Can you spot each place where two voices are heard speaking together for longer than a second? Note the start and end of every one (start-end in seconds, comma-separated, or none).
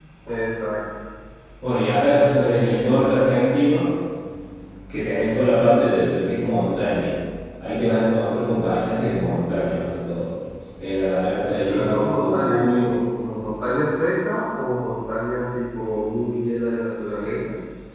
11.7-12.9